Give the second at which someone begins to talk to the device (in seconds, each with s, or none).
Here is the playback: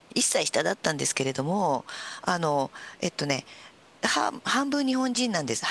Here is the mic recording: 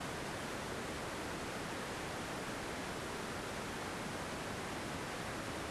none